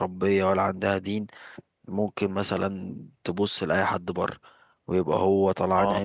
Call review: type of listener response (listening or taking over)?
listening